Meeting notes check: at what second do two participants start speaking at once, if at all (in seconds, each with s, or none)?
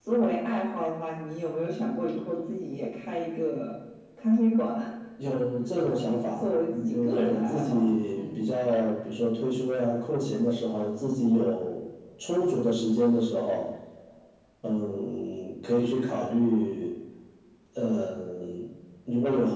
5.9 s